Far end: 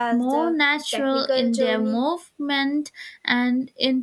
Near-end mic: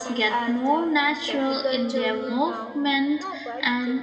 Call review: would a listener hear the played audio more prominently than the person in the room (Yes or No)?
Yes